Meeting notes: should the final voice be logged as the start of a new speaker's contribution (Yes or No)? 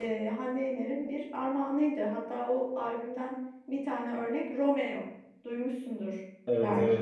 Yes